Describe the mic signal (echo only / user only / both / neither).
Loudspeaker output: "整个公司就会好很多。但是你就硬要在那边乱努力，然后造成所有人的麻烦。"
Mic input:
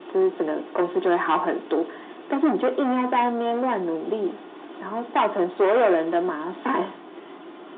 echo only